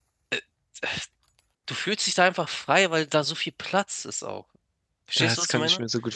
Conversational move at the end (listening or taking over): taking over